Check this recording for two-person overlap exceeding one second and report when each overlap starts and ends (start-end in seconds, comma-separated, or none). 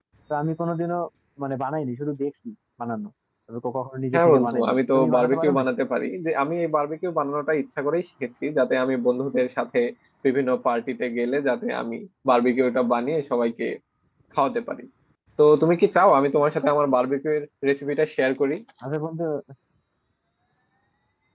4.1-5.7